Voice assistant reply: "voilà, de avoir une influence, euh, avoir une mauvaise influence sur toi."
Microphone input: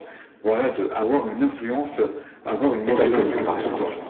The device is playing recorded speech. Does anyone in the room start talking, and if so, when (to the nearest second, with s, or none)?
3 s